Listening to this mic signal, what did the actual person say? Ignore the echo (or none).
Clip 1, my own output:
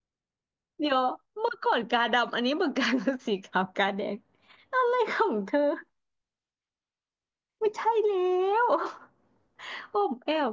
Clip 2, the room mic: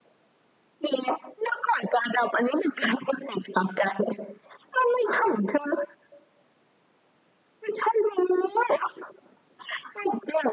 none